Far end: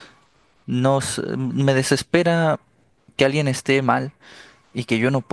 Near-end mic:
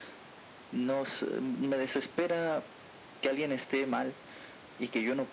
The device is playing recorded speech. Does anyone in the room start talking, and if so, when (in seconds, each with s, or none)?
none